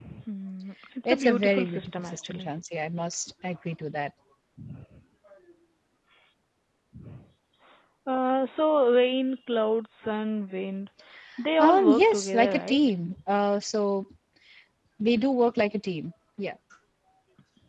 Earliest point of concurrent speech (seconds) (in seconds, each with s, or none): 1.1 s